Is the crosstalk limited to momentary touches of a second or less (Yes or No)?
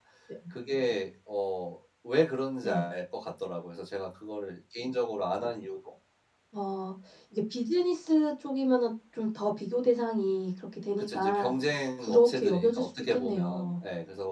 No